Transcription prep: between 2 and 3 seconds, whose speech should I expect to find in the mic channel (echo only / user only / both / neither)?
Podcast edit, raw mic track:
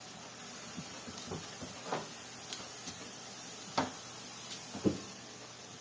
neither